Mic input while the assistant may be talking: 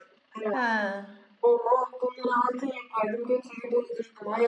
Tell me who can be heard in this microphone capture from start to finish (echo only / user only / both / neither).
both